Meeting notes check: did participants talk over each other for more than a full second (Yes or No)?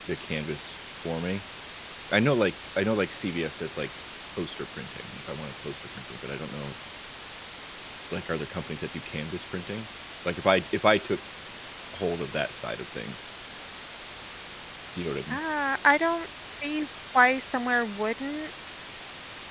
No